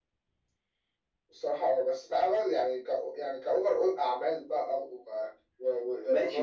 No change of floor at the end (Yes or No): No